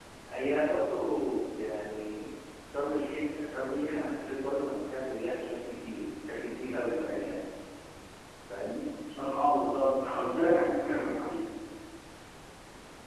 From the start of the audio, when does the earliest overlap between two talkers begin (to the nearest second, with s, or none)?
none